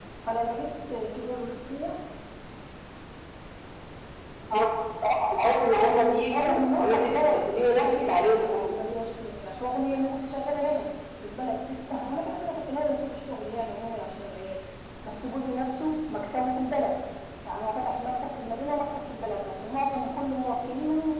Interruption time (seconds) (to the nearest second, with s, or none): 6 s